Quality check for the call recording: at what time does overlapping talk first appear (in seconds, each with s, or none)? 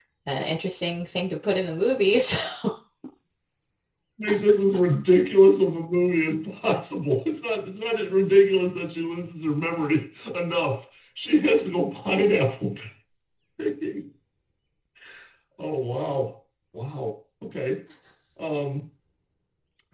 none